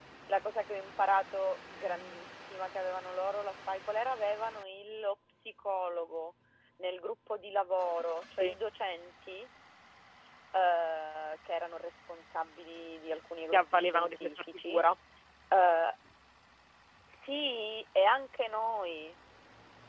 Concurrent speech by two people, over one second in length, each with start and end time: 13.5-14.8

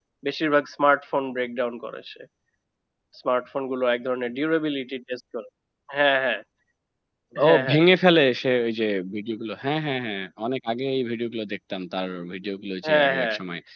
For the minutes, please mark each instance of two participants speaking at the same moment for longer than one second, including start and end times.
none

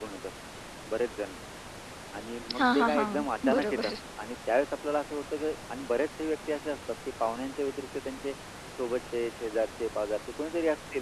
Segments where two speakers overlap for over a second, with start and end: 2.6-3.9

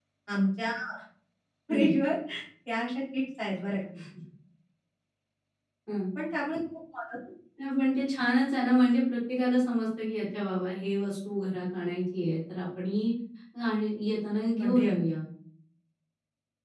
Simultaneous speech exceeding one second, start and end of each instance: none

